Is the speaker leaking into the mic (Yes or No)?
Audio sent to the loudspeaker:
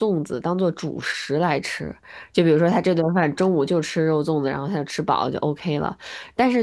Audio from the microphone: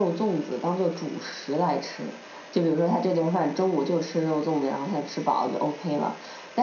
Yes